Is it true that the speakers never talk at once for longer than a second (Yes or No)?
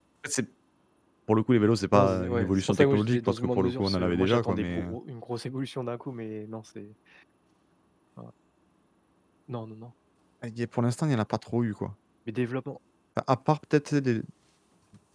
No